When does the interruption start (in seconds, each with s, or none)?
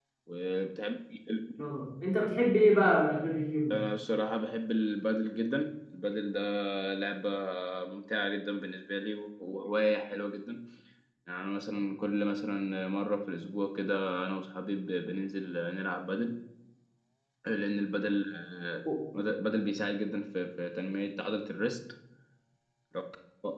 none